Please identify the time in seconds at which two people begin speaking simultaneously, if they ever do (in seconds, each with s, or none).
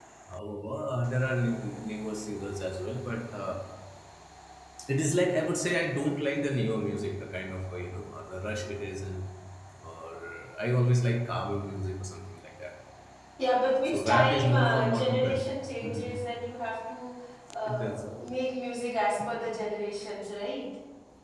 13.9 s